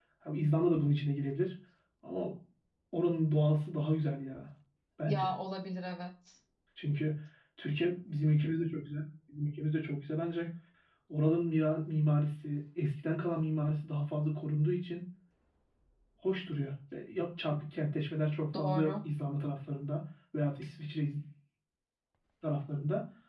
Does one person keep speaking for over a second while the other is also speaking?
No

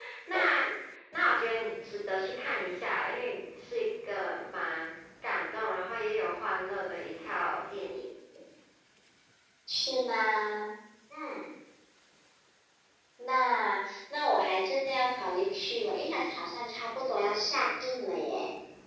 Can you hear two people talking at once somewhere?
No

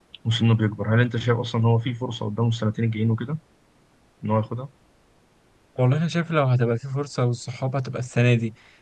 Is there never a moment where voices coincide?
Yes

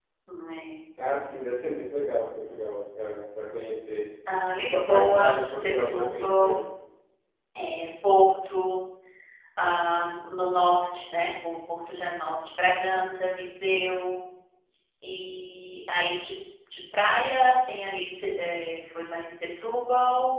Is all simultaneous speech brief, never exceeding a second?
No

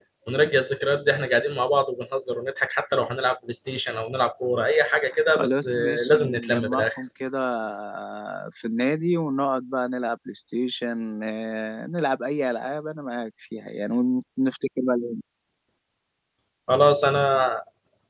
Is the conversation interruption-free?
No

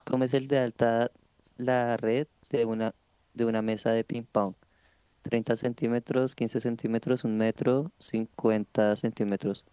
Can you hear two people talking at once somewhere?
No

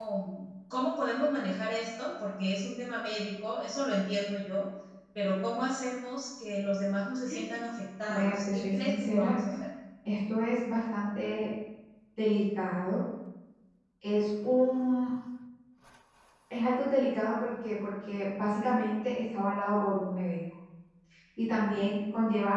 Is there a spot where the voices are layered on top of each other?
Yes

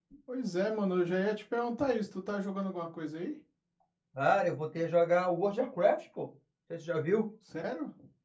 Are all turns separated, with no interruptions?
Yes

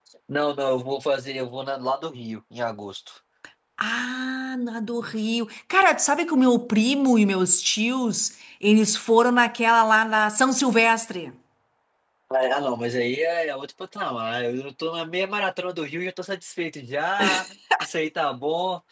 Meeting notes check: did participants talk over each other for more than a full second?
No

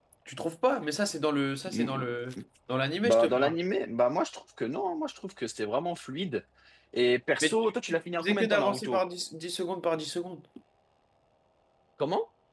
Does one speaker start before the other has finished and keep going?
Yes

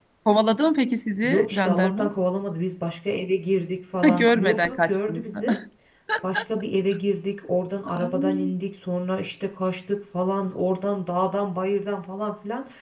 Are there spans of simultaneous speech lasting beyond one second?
Yes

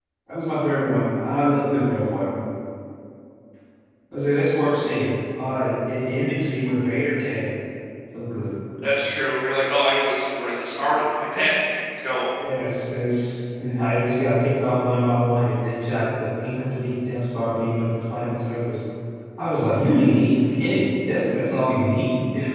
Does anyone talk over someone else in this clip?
No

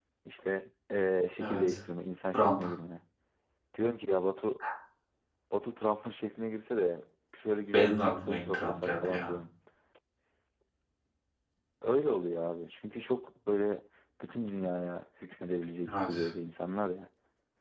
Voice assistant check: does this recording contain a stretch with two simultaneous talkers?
Yes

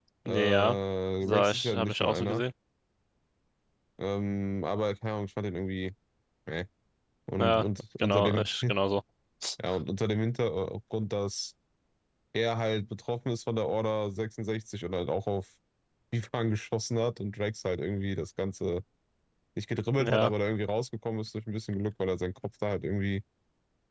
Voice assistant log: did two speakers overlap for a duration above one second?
Yes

